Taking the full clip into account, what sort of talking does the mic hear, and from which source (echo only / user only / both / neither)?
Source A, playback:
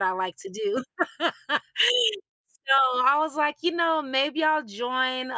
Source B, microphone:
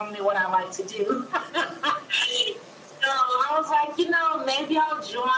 echo only